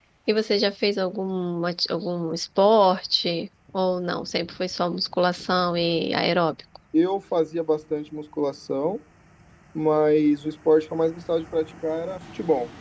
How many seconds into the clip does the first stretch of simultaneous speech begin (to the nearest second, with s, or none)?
none